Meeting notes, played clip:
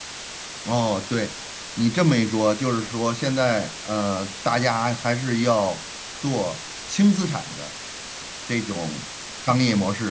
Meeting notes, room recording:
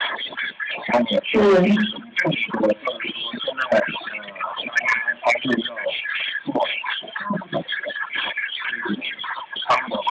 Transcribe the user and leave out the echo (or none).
嗯